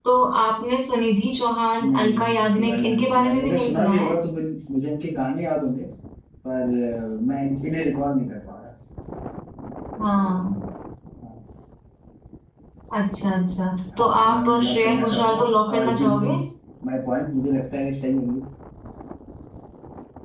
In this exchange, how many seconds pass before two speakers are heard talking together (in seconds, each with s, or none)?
1.8 s